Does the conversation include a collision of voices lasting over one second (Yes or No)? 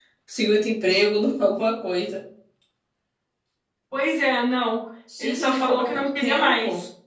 Yes